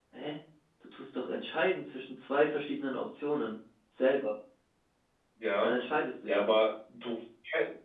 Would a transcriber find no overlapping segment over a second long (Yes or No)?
Yes